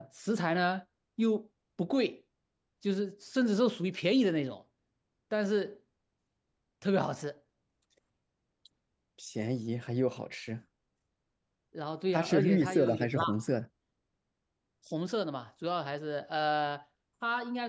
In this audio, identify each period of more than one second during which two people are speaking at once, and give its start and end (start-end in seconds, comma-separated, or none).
12.1-13.4